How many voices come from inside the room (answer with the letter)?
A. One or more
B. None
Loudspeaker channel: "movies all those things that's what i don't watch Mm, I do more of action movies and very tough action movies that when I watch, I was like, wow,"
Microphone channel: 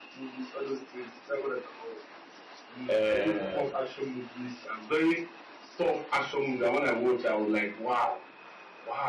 A